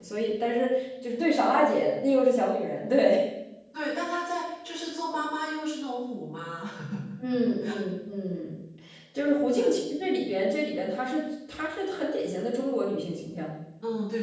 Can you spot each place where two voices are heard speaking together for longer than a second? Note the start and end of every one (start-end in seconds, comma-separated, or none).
none